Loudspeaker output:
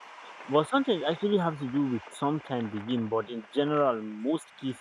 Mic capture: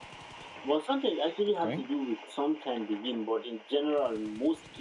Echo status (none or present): present